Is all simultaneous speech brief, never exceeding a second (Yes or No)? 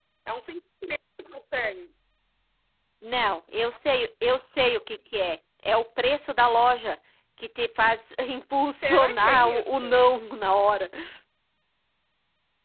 No